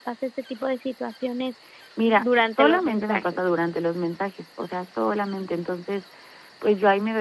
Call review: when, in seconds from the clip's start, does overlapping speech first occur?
2.2 s

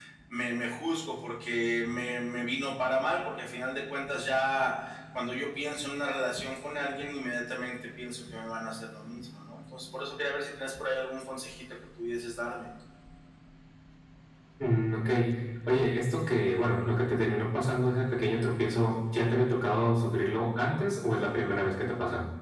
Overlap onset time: none

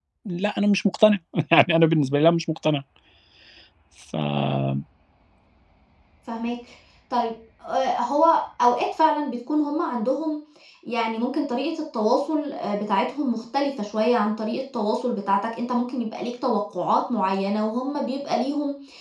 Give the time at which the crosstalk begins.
none

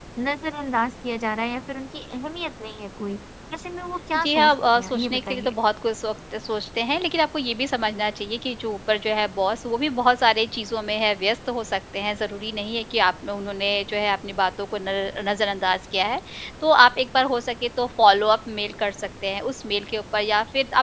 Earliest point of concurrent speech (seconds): 4.2 s

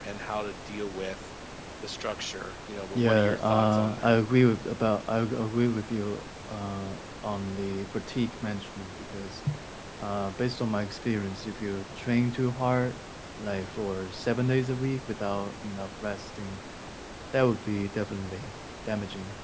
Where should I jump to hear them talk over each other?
3.0 s

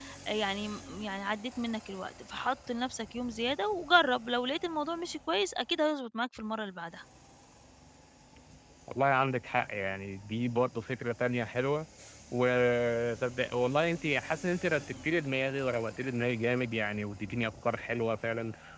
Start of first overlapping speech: none

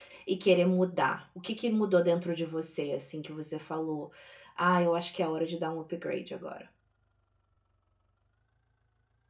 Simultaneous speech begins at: none

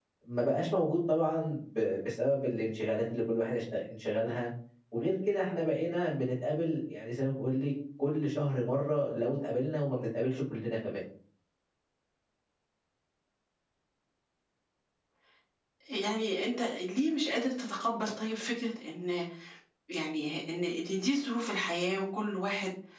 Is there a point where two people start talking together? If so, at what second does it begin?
none

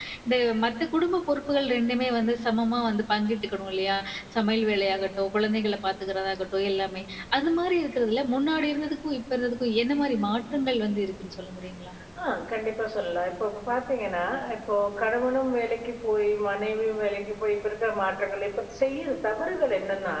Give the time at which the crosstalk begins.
none

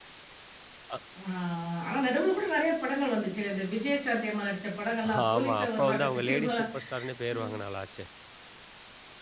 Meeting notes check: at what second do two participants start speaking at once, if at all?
5.0 s

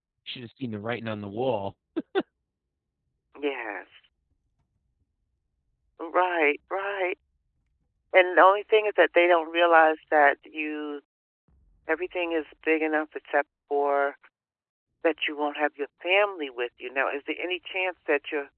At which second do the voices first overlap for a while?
none

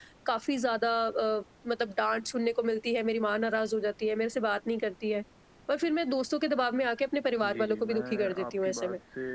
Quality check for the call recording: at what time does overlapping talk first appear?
7.4 s

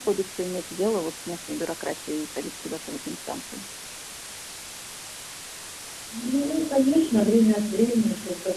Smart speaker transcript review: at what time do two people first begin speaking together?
none

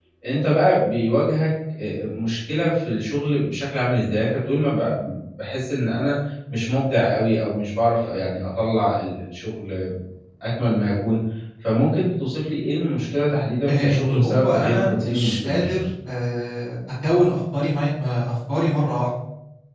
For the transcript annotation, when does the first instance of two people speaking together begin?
13.7 s

